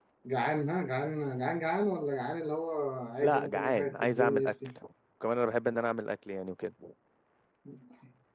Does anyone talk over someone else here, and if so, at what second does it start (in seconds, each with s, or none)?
3.2 s